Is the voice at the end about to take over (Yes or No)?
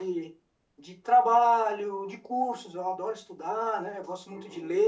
No